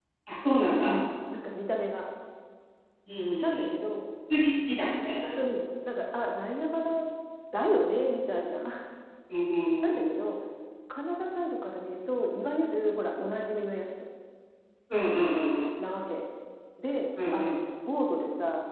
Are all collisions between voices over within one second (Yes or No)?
Yes